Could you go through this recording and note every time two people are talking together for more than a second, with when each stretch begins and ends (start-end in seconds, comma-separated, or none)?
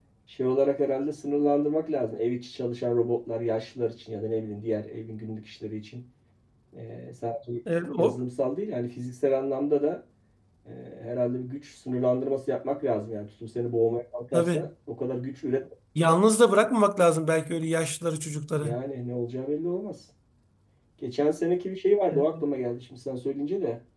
none